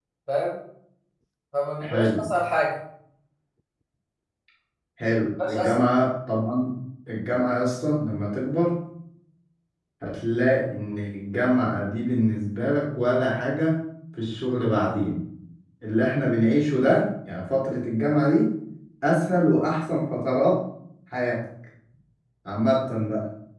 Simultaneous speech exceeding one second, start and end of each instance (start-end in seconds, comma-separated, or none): none